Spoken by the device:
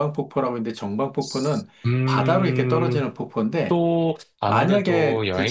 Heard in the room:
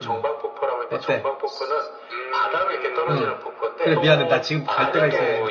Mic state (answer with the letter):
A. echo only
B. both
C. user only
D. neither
B